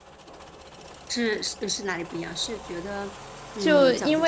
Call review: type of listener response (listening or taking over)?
taking over